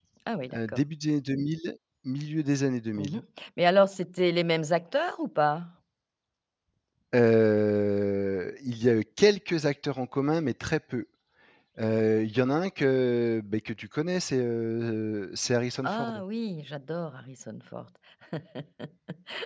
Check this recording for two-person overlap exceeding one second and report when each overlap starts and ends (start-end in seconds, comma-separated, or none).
none